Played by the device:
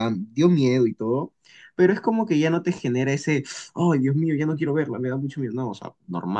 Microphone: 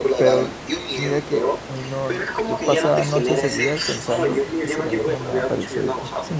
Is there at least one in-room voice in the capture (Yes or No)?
Yes